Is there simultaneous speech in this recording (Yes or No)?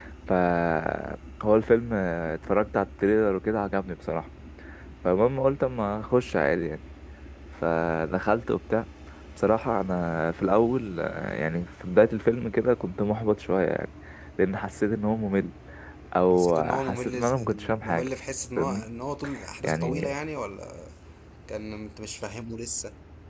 Yes